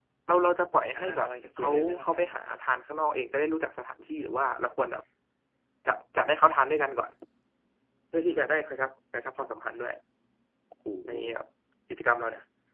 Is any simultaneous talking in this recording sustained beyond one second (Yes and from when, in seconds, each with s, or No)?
Yes, from 0.9 s